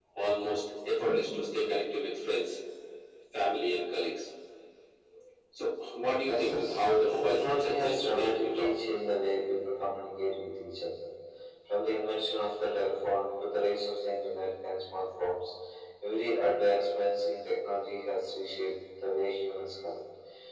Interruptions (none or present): present